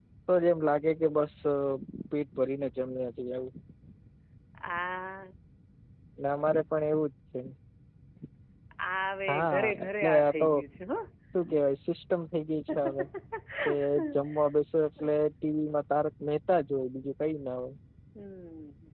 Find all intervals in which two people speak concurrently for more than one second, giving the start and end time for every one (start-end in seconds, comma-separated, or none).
9.3-10.5